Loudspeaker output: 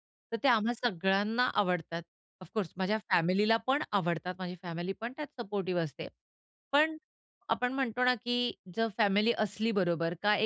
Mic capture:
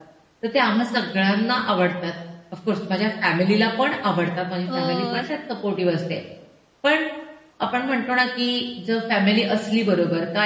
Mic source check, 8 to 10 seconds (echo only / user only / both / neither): echo only